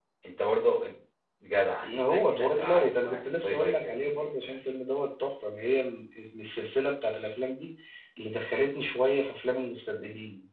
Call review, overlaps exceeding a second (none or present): present